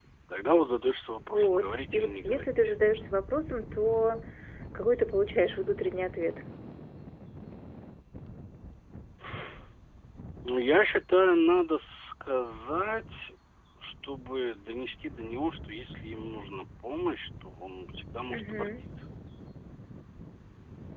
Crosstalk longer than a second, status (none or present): present